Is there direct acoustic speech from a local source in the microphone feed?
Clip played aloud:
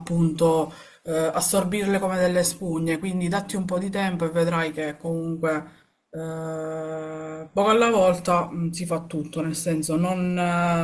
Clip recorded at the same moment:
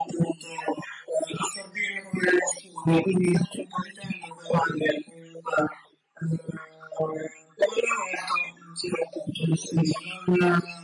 No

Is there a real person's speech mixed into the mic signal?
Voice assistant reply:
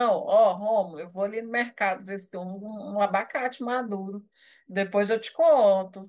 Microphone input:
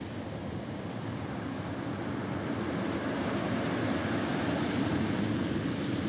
No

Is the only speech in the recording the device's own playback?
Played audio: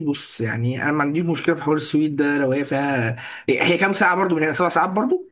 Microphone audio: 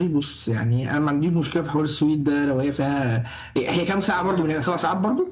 No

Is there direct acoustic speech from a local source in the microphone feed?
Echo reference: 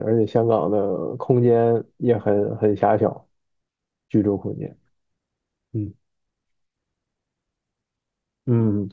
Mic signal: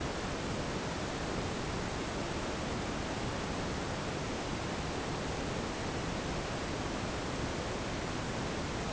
No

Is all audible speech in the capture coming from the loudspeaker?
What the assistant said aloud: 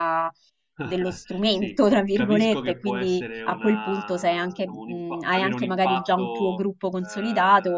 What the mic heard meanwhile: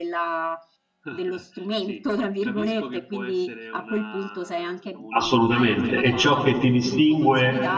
No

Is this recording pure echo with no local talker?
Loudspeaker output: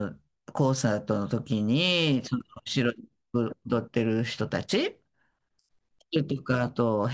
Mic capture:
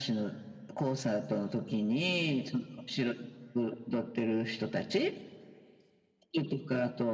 Yes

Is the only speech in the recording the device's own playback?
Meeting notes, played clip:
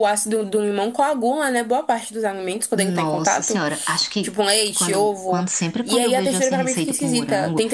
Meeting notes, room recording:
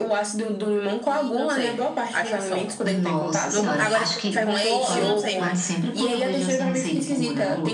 No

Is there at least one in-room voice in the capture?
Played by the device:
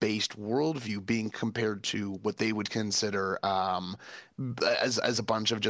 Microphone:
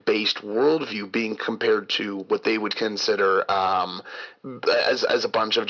No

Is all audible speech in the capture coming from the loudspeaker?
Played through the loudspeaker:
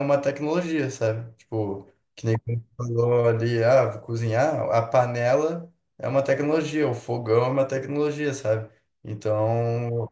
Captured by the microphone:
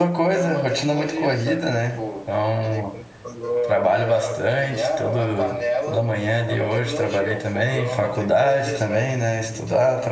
No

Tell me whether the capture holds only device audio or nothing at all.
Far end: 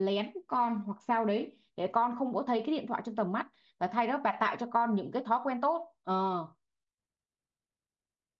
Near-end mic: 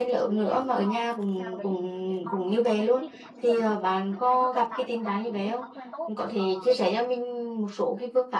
No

